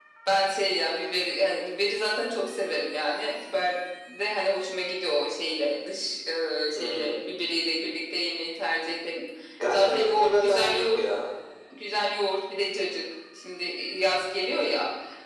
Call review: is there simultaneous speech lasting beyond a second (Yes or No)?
Yes